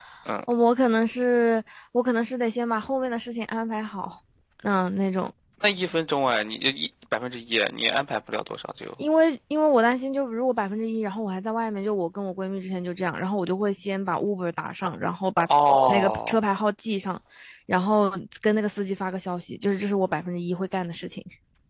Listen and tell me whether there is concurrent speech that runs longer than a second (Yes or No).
No